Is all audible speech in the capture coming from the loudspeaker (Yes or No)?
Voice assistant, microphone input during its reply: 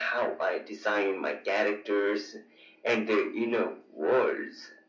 Yes